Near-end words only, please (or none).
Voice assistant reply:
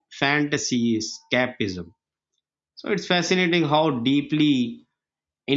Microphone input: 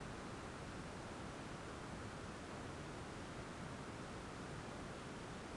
none